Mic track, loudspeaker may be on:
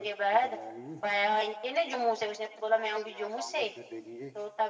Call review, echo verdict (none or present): present